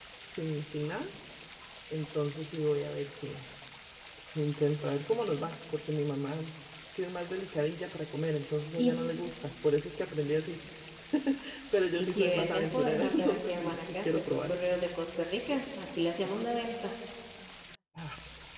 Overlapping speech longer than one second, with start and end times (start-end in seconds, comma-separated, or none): 11.9-14.5